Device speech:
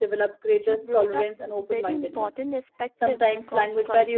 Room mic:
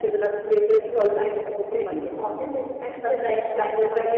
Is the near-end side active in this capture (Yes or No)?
No